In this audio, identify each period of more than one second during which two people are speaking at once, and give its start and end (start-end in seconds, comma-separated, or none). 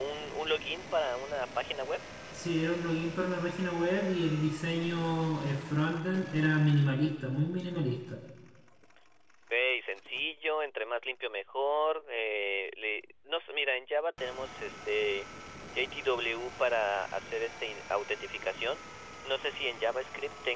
none